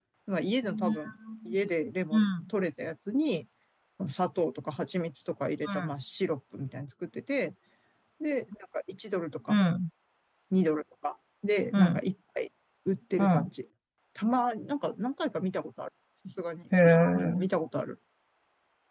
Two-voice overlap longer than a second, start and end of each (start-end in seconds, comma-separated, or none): none